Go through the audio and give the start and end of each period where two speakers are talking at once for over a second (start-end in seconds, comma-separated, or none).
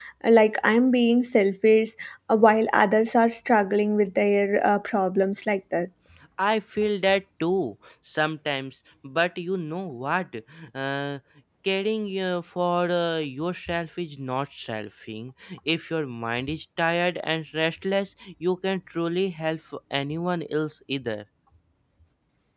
none